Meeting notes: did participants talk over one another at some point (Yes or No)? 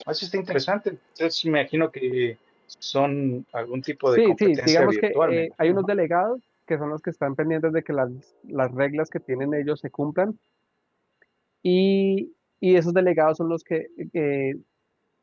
Yes